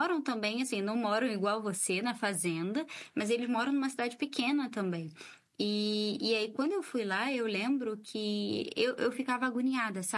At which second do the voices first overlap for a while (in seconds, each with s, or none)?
none